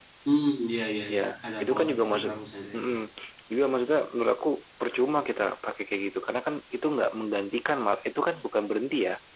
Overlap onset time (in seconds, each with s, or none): 1.1 s